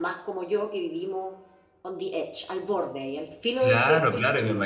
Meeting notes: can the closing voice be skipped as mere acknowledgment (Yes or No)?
No